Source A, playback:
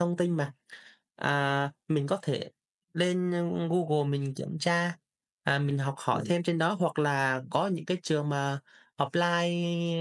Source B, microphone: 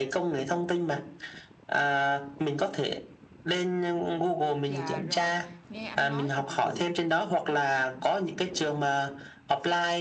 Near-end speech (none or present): present